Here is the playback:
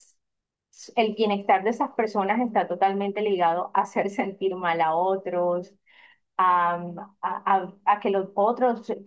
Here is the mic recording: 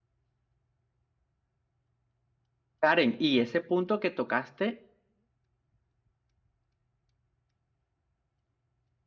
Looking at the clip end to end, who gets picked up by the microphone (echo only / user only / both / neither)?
user only